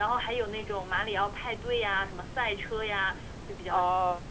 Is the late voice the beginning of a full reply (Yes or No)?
Yes